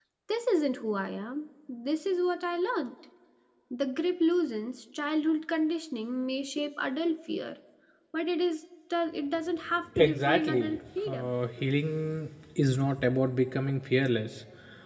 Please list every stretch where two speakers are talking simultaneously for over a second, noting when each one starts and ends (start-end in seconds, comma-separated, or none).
10.0-11.3